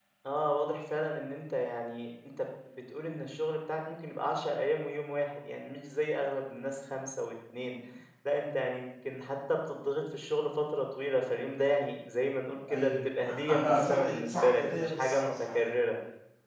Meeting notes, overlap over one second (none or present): present